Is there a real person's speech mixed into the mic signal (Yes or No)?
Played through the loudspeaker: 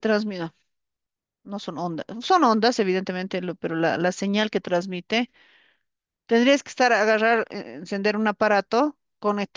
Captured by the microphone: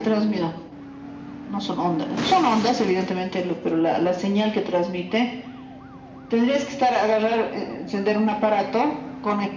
No